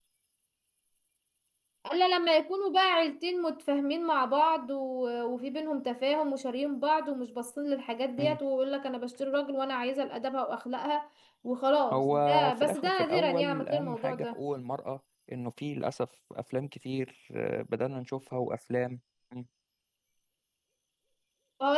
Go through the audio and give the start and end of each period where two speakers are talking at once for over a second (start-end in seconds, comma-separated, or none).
11.9-14.4